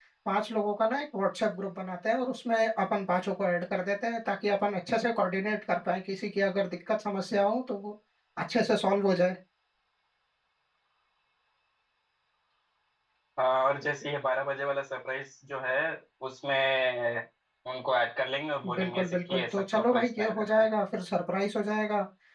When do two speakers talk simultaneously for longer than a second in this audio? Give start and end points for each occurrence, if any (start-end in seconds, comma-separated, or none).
18.8-20.6